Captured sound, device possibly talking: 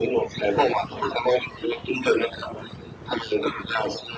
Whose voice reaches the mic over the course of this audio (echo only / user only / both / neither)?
echo only